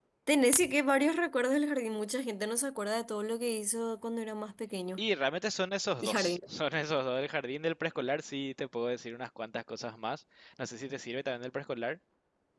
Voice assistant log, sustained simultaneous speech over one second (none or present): none